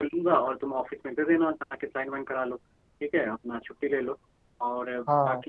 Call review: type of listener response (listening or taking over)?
listening